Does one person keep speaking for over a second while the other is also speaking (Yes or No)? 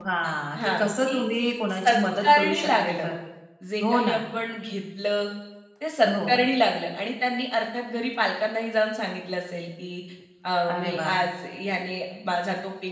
Yes